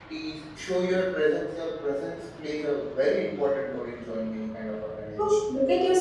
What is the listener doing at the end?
taking over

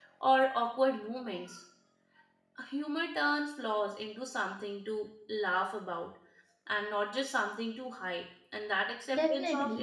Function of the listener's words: listening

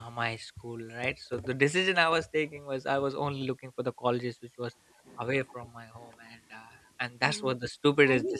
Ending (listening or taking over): taking over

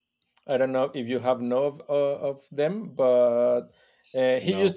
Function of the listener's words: listening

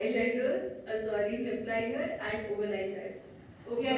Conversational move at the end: taking over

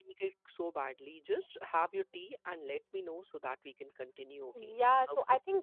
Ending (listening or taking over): taking over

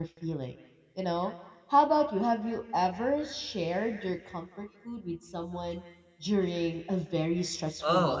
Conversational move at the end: taking over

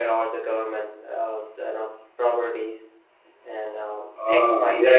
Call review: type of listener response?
taking over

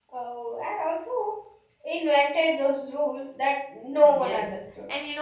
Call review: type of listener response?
taking over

